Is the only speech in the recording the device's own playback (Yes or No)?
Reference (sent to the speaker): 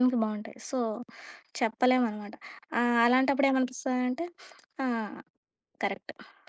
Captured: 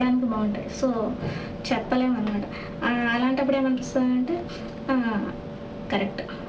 Yes